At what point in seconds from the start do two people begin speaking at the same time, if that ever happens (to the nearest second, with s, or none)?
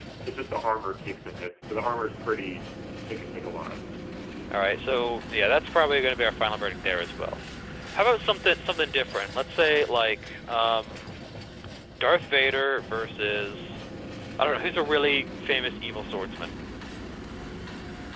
none